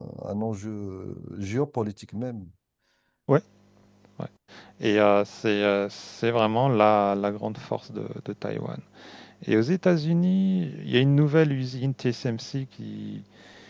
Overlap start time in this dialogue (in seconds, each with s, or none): none